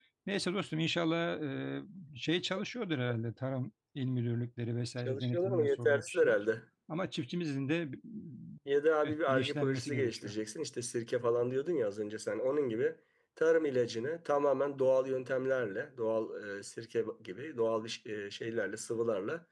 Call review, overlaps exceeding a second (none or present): present